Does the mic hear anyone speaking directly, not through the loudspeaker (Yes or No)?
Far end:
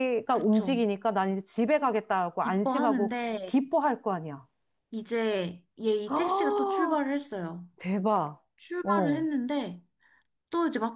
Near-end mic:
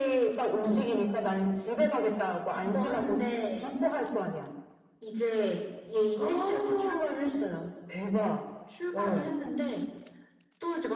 No